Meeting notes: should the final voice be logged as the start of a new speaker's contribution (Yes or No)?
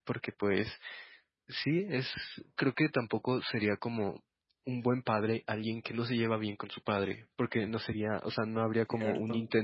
No